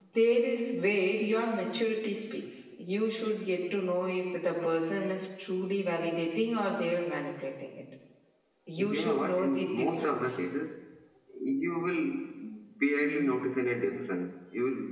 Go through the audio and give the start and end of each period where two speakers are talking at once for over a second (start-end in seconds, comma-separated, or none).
8.8-10.5